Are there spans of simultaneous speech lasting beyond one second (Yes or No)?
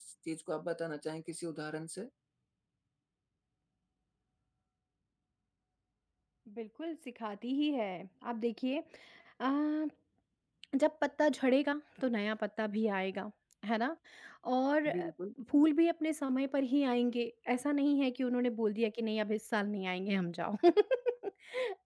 No